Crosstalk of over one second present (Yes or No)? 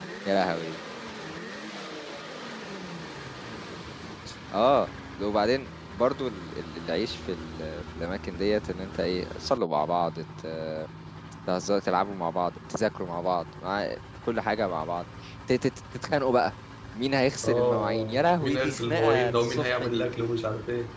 Yes